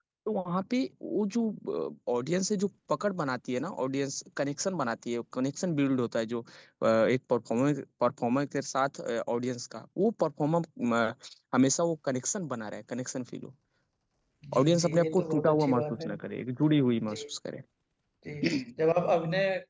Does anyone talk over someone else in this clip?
Yes, from 14.6 s

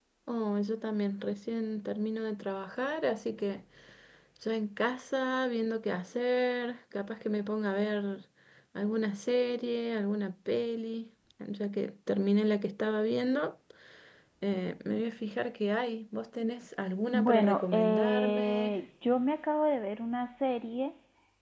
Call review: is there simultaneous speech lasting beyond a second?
Yes, from 17.1 s

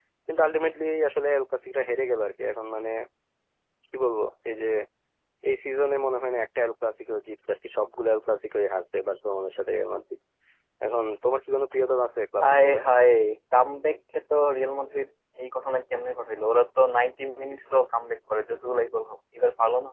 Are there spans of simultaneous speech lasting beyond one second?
No

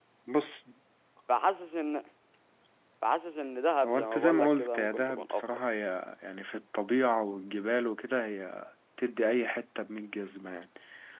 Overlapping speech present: Yes, from 3.8 s

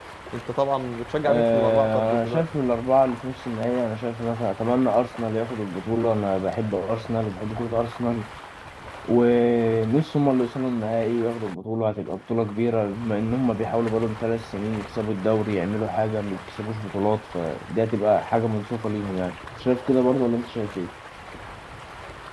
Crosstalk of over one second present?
Yes, from 1.2 s

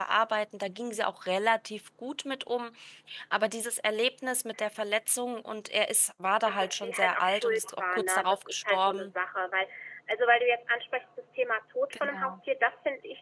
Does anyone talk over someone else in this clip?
Yes, from 6.5 s

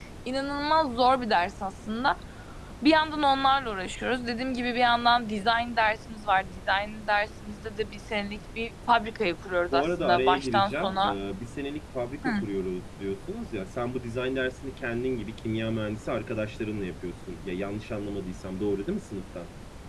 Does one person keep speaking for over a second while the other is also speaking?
Yes, from 9.7 s

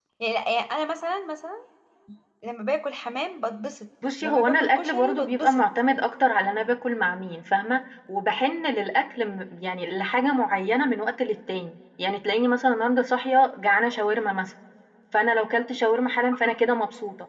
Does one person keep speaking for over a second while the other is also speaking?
Yes, from 4.0 s

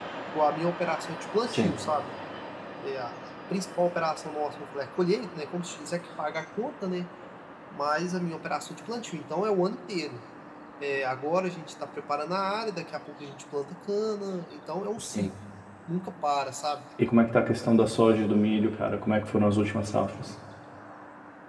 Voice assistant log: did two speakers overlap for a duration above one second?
No

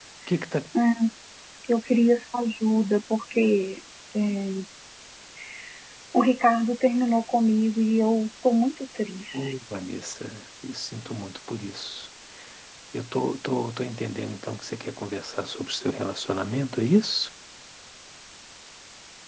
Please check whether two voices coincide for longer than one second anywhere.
No

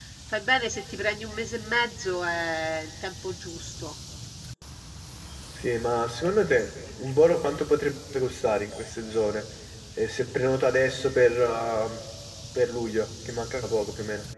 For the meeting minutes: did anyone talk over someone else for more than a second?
No

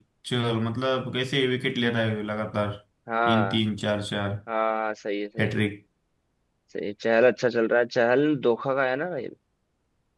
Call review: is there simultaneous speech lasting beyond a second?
No

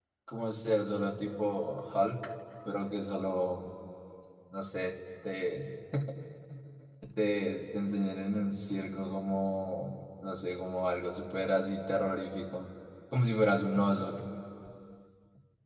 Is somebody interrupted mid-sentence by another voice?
No

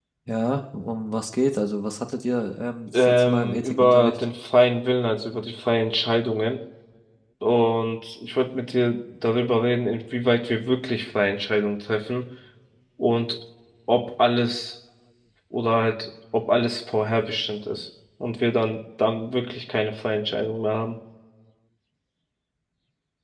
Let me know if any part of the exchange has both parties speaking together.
Yes, from 2.9 s

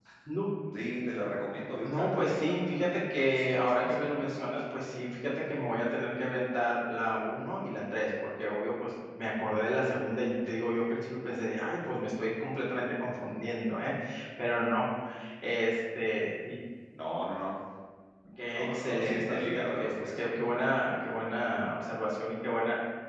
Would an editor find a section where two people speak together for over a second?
Yes, from 1.8 s

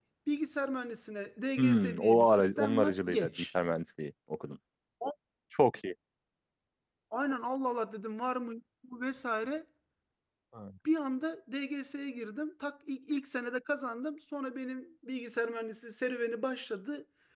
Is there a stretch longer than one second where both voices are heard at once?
Yes, from 1.6 s

